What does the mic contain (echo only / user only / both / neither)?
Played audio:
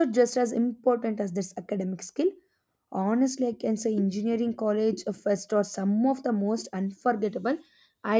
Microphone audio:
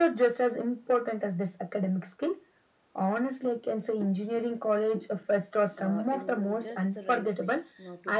both